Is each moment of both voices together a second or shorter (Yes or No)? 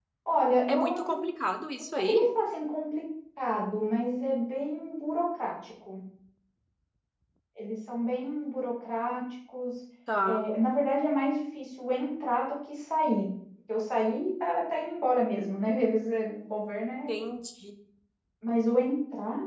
Yes